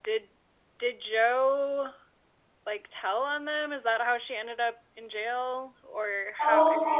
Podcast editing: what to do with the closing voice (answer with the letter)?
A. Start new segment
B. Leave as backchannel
A